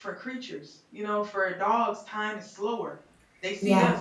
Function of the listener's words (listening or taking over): listening